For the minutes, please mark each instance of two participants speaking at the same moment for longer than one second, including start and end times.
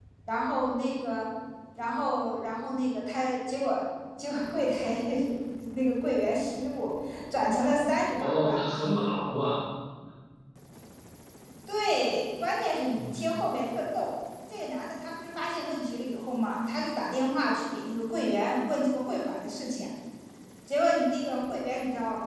none

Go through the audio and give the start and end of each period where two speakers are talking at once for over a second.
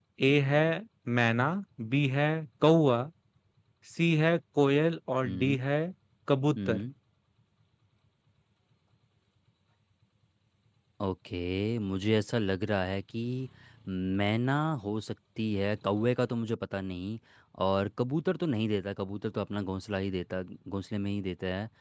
none

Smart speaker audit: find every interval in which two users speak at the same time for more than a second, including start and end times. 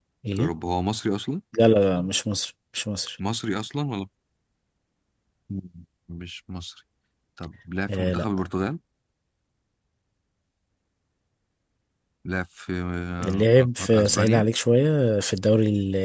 13.2-14.4

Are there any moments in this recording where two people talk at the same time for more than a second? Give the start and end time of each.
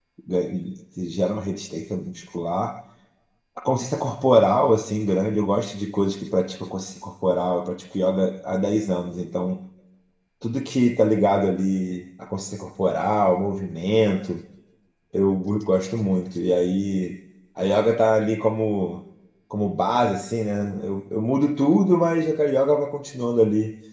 none

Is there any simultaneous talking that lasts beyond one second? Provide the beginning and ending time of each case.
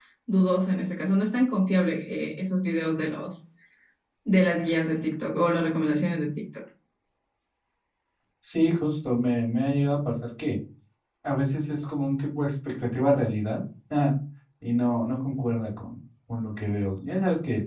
none

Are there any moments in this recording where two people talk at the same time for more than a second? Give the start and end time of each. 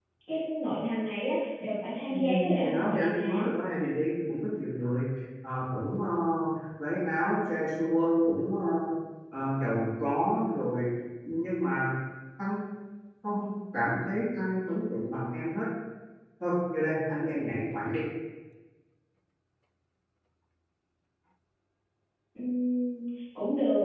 2.1-3.5

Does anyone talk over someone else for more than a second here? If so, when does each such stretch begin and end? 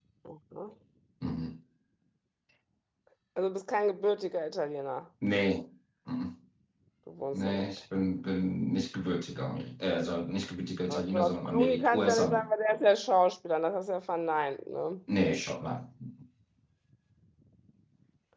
10.9-12.5

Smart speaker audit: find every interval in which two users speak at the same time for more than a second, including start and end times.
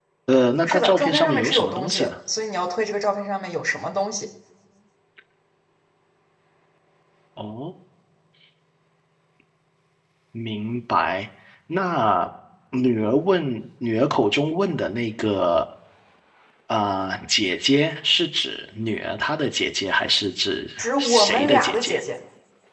0.6-2.1, 20.8-22.0

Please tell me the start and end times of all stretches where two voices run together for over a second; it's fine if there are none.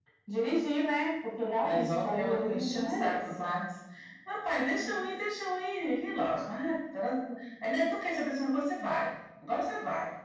1.6-3.2

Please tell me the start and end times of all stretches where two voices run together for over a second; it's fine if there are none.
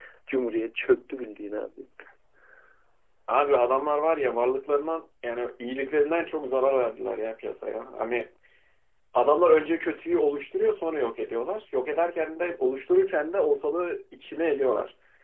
none

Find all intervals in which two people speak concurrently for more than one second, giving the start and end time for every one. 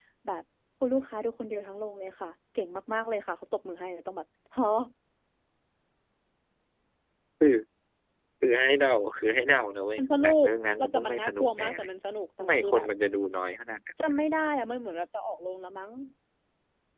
10.0-11.9

